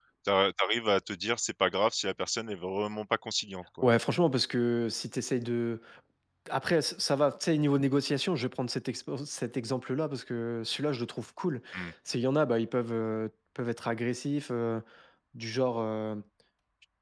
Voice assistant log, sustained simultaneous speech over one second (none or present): none